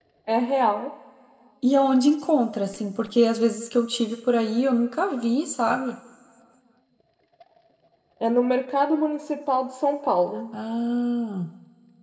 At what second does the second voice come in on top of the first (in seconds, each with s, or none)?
none